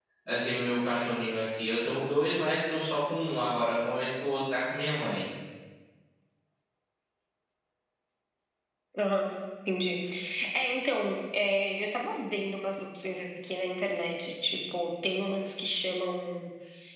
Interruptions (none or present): none